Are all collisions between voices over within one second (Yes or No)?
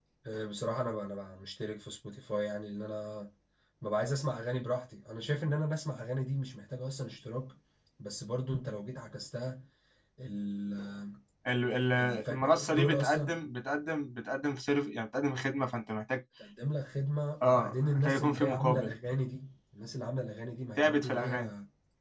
No